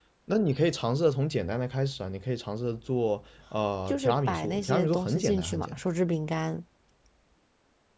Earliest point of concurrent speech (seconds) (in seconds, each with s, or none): 3.9 s